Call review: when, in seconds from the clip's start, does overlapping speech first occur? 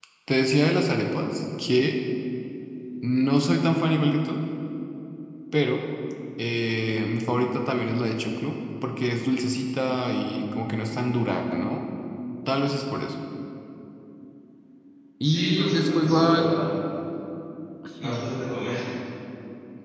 15.2 s

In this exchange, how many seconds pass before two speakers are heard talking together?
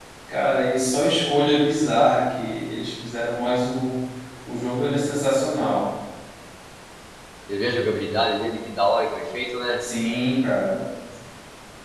none

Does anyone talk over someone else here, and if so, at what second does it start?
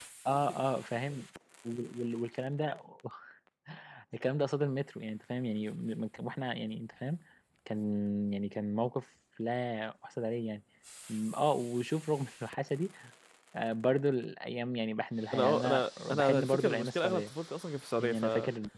15.3 s

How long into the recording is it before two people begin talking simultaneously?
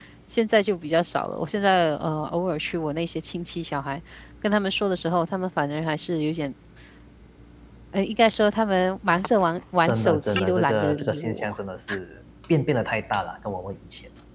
9.8 s

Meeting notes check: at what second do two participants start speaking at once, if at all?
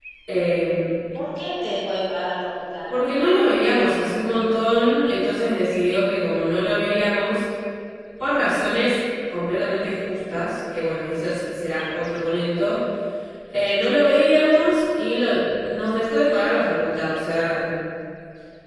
none

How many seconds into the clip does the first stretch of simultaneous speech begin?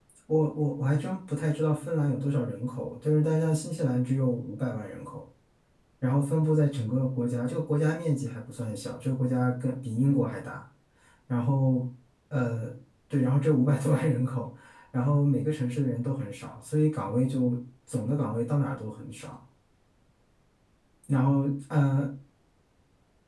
none

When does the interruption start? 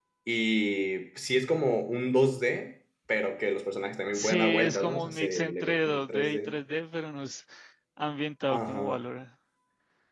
4.1 s

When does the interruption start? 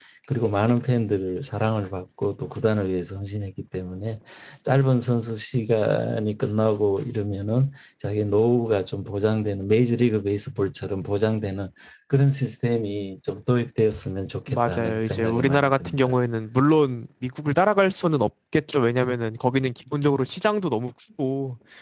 14.5 s

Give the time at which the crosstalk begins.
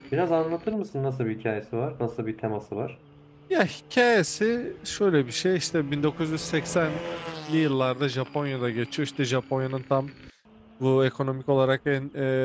none

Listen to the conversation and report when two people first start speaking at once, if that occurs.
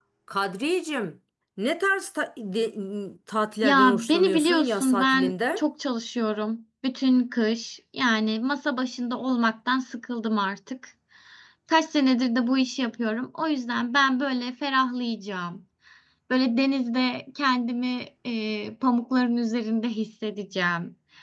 3.6 s

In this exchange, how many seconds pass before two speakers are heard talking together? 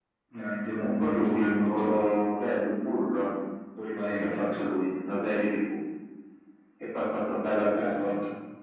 0.8 s

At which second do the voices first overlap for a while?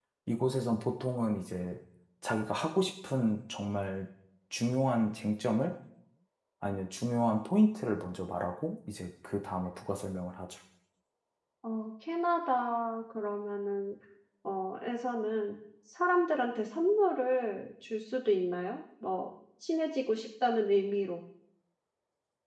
none

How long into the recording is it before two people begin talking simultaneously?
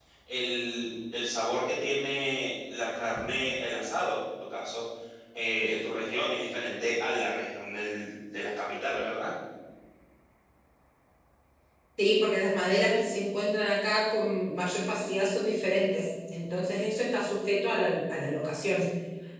none

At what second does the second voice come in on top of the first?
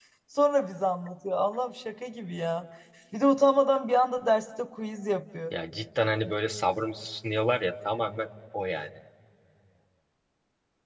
none

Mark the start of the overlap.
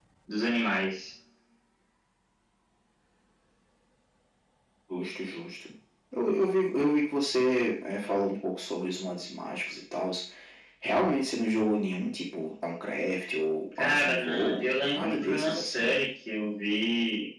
13.8 s

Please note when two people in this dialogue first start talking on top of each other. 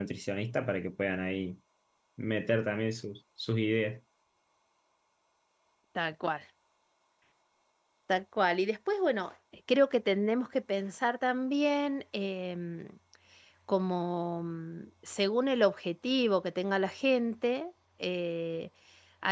none

